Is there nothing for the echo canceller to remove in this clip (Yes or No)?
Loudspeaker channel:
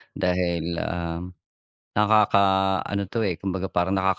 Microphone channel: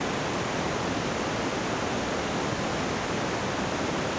Yes